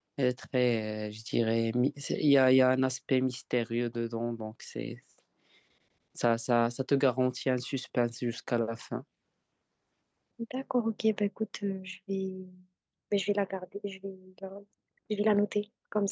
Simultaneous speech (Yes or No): No